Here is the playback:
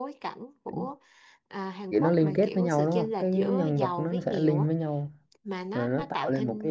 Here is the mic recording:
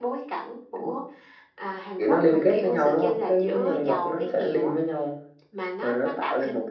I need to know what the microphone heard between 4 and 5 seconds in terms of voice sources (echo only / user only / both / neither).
echo only